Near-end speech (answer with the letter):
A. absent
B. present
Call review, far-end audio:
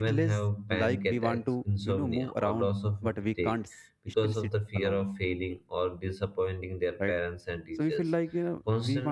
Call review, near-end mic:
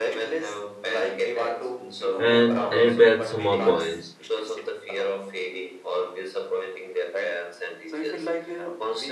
B